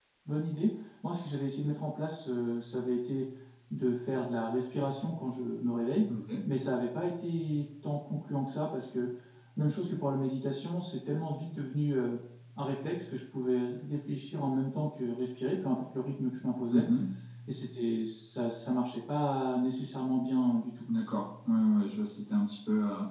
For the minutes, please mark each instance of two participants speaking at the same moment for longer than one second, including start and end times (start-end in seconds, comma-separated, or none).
none